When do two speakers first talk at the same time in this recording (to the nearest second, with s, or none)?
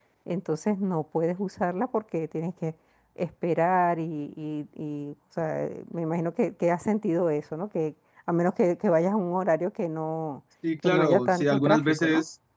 11 s